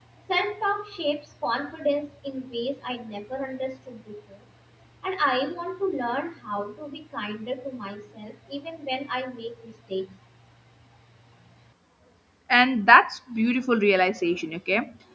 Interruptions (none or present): none